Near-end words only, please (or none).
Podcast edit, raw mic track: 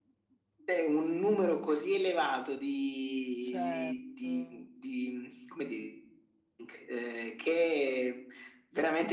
Certo.